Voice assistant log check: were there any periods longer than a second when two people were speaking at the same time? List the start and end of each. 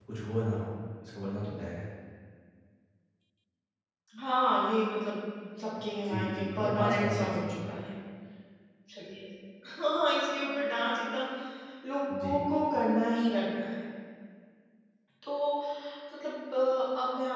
6.1-7.7

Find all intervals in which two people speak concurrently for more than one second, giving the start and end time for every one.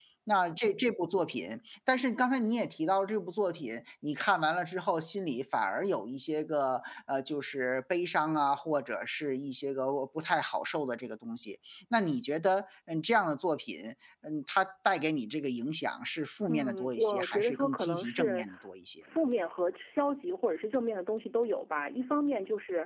16.5-18.4

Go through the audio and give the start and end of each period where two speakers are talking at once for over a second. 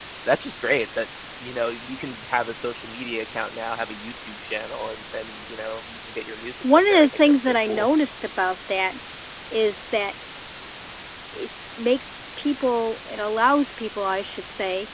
6.6-7.9

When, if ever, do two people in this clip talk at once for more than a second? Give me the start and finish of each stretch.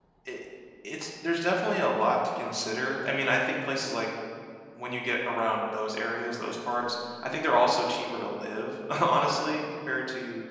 none

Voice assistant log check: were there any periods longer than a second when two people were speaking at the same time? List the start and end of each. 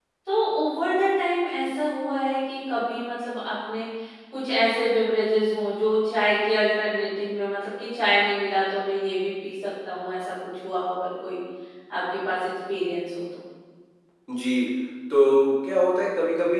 none

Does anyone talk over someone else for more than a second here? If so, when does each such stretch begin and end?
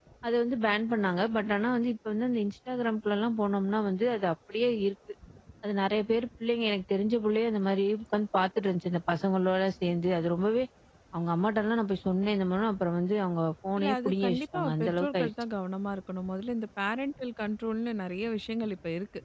13.8-15.3

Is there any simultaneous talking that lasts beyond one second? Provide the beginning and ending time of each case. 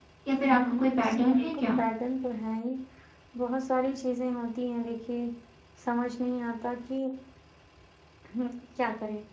0.5-1.8

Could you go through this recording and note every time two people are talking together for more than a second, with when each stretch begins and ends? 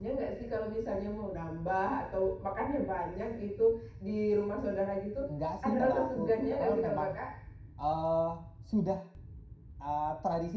5.6-7.1

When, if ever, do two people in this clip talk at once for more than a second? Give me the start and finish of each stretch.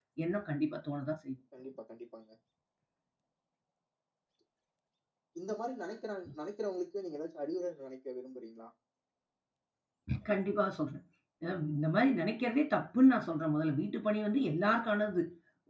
none

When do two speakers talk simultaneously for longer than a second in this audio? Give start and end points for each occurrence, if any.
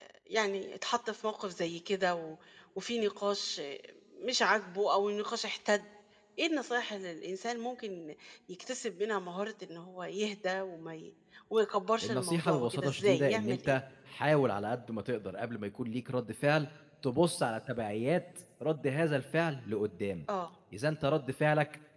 12.0-13.8

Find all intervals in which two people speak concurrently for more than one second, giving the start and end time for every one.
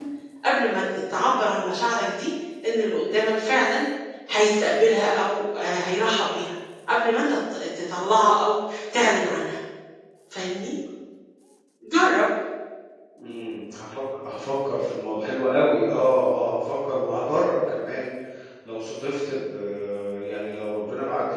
none

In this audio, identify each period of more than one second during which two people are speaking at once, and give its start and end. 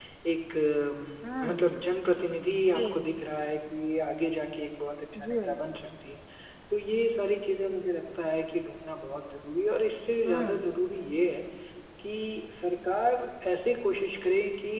none

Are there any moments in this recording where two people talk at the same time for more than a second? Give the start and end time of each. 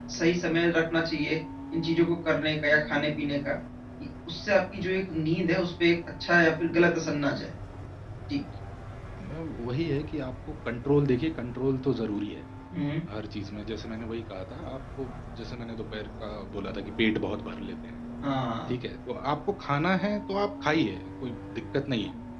none

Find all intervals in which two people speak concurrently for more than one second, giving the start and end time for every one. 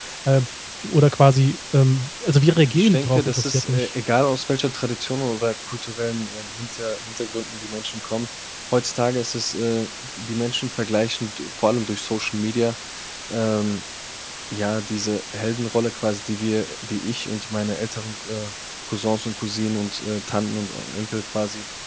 2.5-3.9

